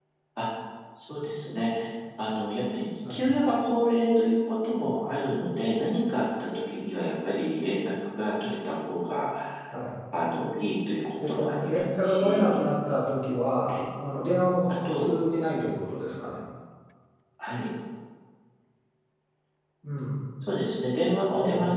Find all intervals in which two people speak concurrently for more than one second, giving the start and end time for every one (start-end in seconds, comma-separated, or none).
11.3-12.6